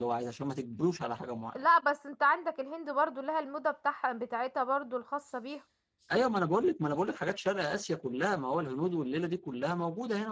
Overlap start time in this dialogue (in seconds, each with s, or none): none